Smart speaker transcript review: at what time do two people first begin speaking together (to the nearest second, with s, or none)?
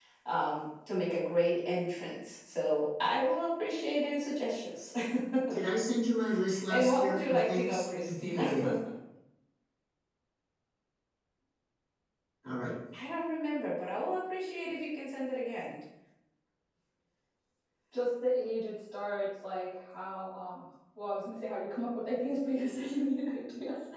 6 s